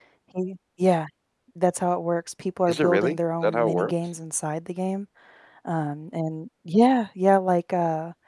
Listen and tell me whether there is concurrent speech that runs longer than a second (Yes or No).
Yes